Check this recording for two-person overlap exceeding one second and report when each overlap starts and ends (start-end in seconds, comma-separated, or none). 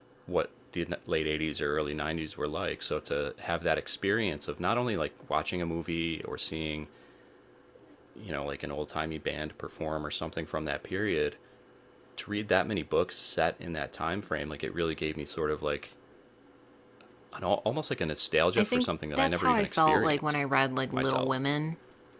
18.6-20.4